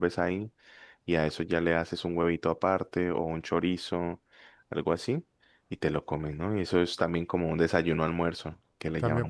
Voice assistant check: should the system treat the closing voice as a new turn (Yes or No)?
Yes